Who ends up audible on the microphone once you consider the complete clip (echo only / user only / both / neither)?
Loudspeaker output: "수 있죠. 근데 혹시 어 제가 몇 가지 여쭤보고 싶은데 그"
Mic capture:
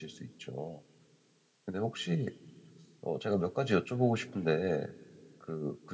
echo only